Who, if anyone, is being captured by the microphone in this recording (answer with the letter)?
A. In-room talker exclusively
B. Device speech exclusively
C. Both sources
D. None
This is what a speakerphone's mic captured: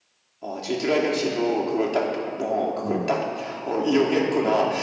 C